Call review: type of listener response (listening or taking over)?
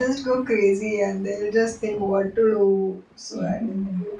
taking over